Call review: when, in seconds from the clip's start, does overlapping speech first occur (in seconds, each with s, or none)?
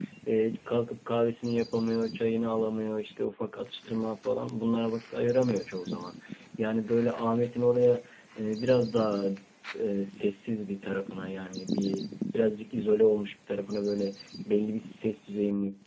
none